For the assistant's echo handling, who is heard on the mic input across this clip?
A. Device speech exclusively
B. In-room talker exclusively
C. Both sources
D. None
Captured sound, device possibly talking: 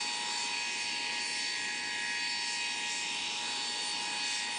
D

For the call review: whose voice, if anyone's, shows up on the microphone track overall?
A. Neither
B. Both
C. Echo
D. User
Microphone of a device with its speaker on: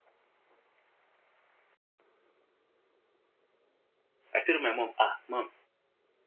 D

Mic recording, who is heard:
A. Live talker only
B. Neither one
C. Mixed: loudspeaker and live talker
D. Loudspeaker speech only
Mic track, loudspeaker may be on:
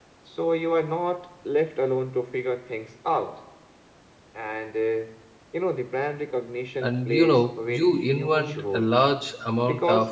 C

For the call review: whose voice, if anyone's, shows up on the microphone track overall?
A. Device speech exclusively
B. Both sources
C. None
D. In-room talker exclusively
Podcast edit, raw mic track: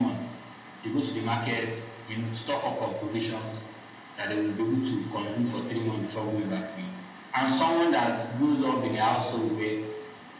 A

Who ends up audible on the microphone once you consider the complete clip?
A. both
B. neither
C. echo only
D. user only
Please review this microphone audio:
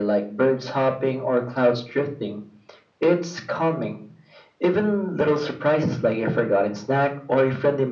C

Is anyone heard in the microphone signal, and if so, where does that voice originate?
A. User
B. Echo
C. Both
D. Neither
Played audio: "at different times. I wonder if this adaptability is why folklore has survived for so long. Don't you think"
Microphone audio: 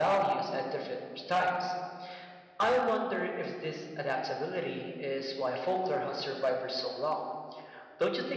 B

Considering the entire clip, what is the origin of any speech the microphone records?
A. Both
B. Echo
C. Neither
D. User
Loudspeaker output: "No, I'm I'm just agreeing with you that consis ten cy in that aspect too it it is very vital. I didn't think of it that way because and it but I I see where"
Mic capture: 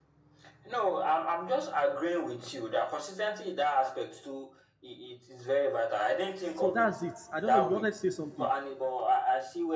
A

